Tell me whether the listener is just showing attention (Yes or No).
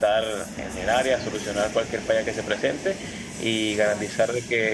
Yes